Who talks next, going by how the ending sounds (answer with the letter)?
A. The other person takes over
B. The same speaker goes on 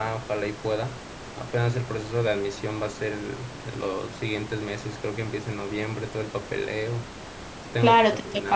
A